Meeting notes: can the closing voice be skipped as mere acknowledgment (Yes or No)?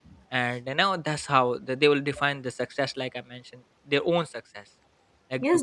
No